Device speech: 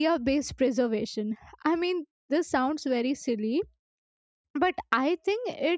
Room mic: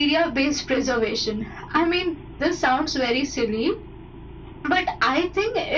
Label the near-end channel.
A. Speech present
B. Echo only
B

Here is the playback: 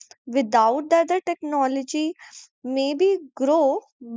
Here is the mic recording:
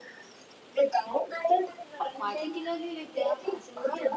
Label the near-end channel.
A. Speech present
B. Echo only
A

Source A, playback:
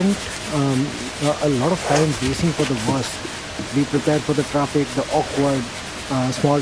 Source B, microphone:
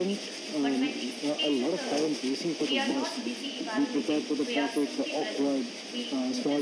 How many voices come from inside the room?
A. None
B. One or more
B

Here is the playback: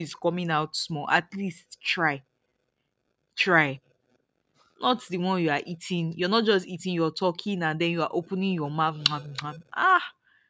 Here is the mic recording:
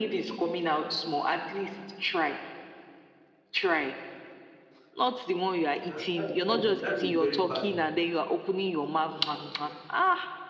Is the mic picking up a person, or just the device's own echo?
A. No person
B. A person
B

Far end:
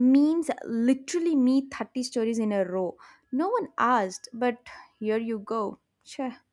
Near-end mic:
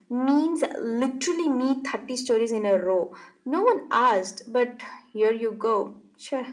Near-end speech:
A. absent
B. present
A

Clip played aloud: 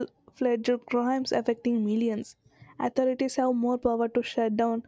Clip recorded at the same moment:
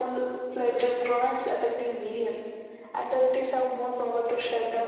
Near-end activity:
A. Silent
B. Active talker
A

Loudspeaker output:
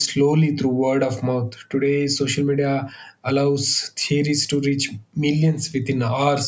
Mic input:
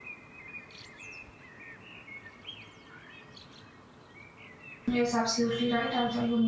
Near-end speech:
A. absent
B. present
B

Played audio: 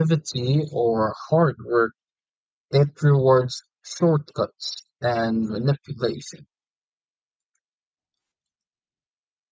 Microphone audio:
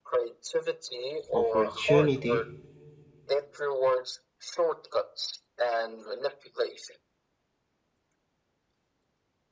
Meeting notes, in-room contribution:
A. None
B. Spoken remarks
B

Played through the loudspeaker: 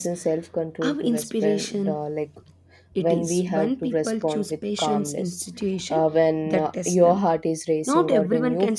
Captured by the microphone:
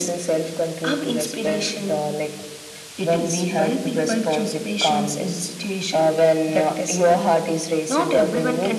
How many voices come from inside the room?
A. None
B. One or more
A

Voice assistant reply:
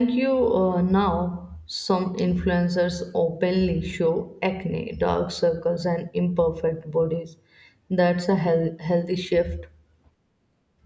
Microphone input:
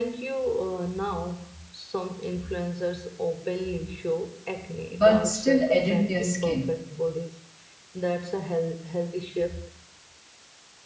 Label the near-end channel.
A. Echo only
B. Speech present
B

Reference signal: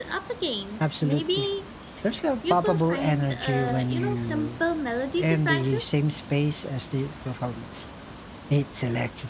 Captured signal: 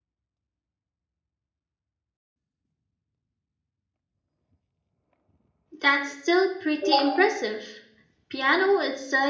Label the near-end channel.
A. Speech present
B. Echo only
A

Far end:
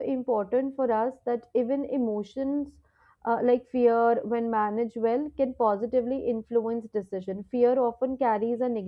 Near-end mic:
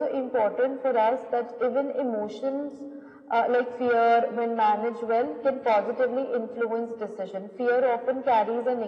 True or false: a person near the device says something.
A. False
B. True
A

